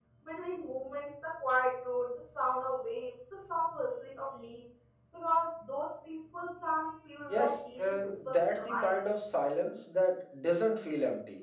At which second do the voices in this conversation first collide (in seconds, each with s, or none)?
7.3 s